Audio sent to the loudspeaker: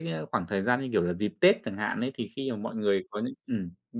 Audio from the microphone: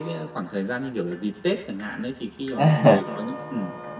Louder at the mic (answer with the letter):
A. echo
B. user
B